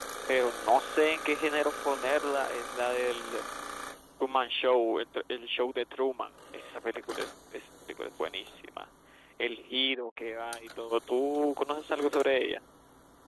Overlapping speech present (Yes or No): No